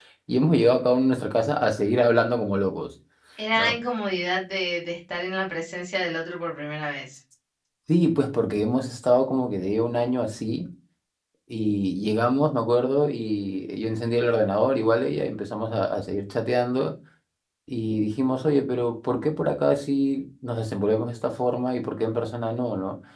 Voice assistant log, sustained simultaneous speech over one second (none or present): none